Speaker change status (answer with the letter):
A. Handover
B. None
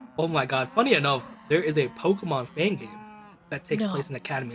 B